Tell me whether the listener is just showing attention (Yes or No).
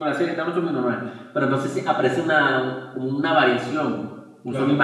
Yes